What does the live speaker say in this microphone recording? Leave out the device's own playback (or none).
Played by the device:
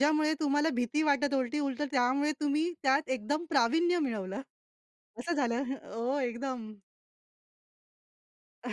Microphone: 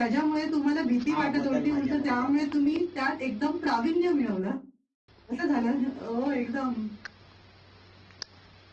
हा बदल माझ्यामध्ये झाला.